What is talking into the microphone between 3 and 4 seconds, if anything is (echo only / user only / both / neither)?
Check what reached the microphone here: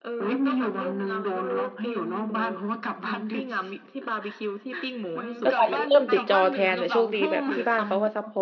echo only